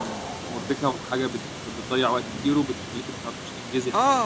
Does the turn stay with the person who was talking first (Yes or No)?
No